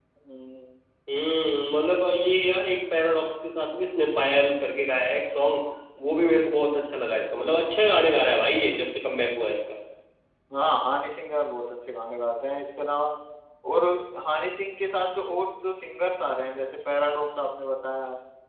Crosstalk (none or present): none